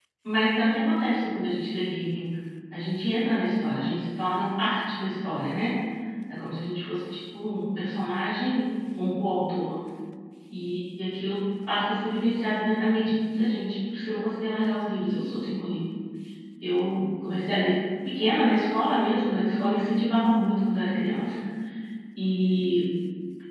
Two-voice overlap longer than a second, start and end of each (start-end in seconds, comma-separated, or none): none